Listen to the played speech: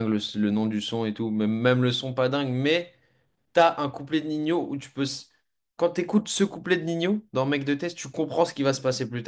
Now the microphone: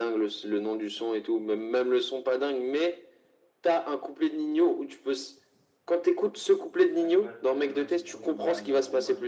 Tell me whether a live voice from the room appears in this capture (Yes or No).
Yes